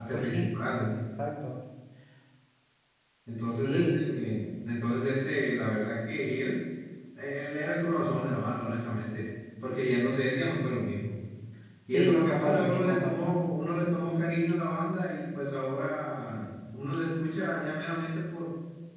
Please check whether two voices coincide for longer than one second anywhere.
Yes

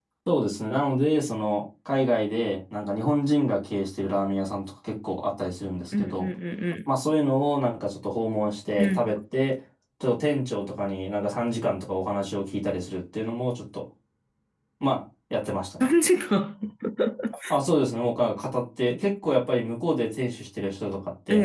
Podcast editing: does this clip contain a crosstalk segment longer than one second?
No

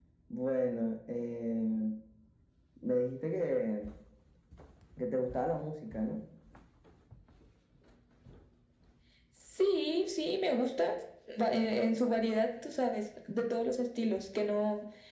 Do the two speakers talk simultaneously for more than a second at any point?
No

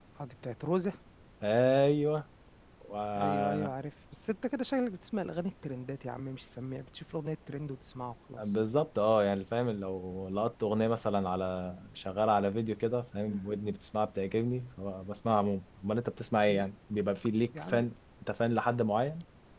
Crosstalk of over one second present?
No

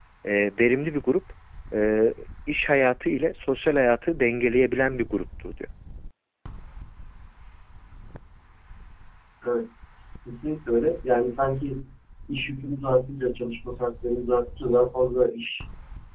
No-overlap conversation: Yes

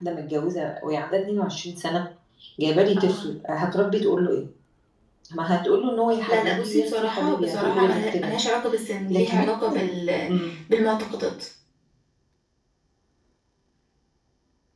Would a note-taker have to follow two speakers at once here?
Yes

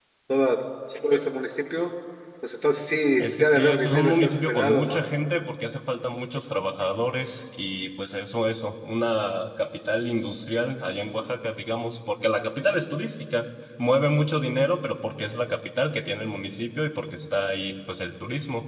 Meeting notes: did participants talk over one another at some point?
Yes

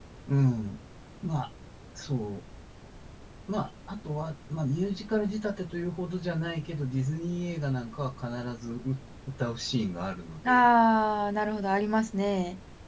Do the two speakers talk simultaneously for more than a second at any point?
No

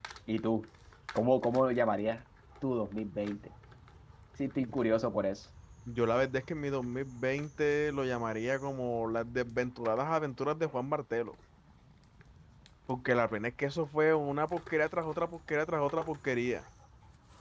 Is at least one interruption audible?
No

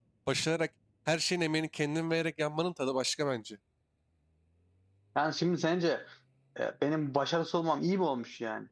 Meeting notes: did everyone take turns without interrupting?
Yes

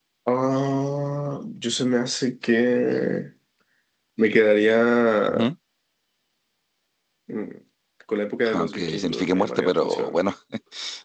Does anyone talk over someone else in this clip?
Yes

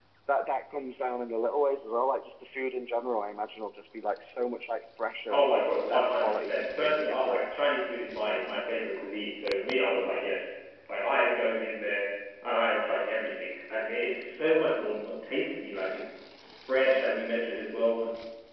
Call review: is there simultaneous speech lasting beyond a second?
Yes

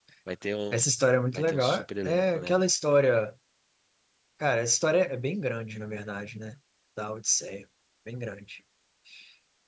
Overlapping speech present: Yes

